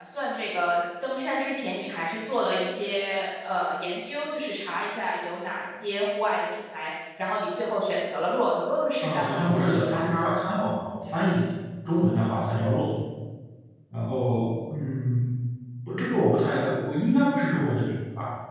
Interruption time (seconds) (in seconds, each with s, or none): 9.0 s